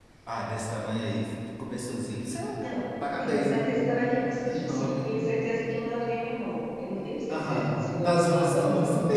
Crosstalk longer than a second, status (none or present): present